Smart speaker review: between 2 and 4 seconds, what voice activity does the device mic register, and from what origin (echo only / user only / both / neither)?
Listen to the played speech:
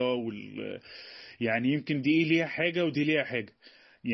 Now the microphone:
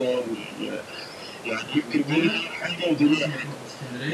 both